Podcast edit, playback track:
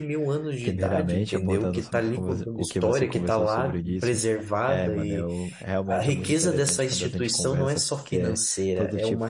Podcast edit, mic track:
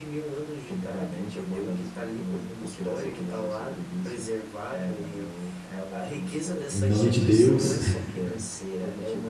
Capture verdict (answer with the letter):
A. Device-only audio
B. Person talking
B